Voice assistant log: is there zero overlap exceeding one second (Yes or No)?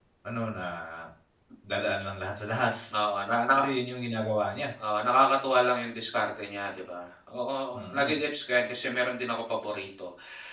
Yes